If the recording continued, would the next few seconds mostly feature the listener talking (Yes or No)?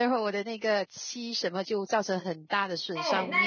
Yes